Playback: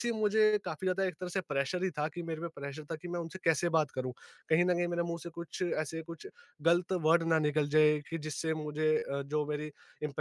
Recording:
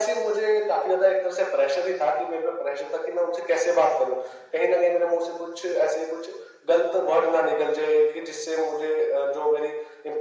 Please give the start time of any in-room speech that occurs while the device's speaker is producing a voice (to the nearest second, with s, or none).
none